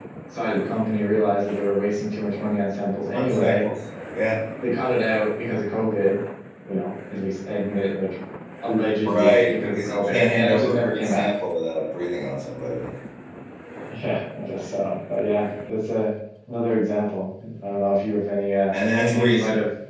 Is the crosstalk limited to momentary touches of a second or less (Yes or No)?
No